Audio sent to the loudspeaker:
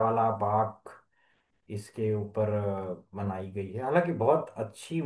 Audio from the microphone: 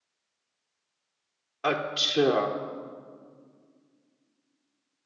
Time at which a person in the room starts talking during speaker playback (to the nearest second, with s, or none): 2 s